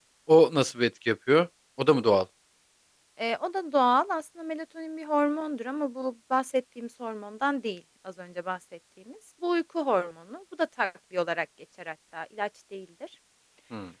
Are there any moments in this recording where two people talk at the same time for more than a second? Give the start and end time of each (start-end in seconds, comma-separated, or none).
none